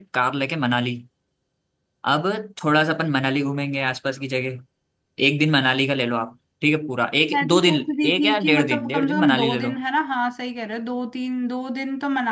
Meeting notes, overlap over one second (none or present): present